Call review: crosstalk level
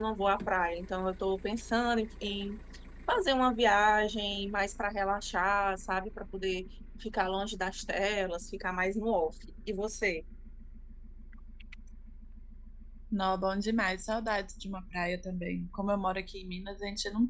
none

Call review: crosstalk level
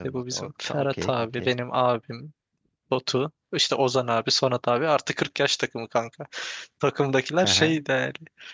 present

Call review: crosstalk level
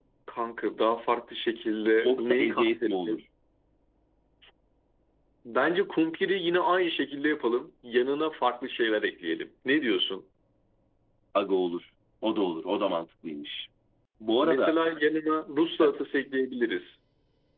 present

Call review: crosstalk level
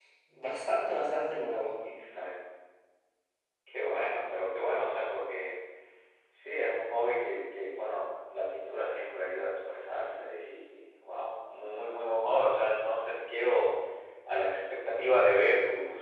none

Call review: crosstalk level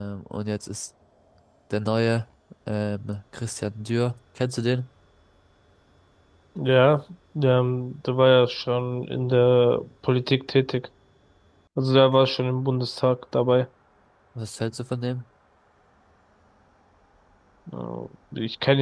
none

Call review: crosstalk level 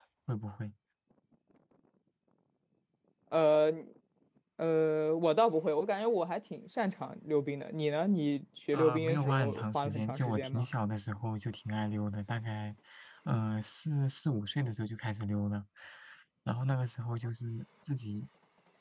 present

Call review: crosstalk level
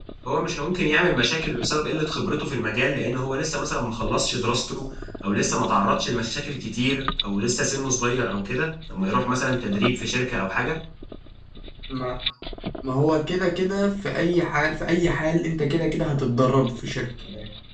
none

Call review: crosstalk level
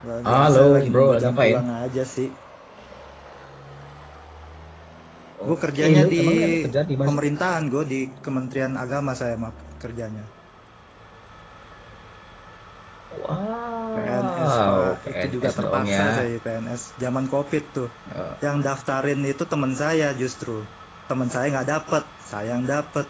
present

